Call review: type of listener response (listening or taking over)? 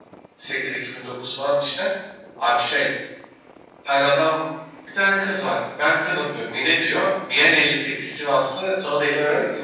listening